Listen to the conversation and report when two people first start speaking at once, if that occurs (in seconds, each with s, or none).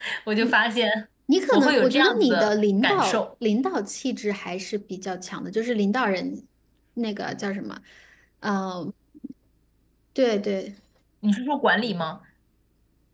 1.5 s